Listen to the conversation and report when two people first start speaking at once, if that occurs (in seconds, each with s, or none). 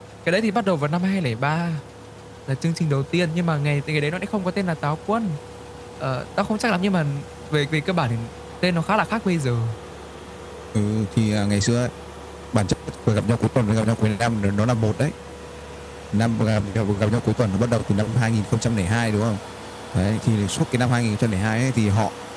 none